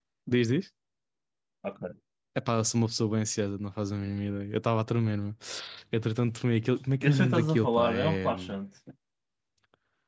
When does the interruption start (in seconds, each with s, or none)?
7.0 s